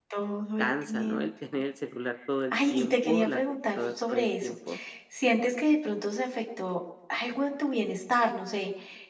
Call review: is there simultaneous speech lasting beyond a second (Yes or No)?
Yes